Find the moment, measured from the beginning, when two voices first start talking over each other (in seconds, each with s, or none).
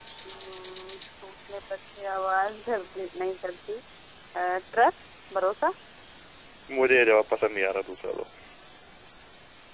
none